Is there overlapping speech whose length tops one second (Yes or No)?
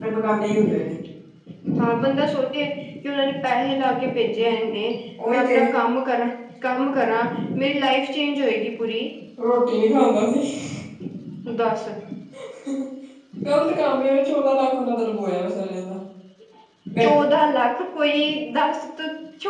No